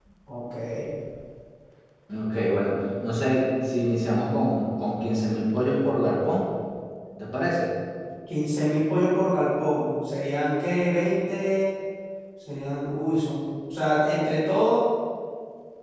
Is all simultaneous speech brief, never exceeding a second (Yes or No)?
Yes